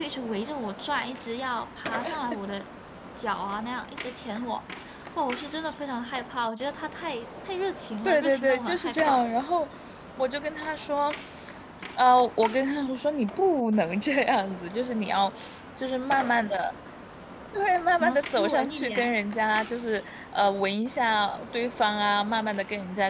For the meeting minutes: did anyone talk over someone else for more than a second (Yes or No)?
Yes